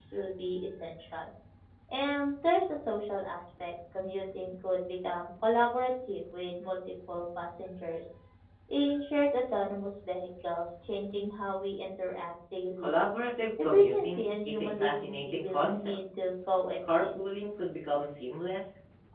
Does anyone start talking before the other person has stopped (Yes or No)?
Yes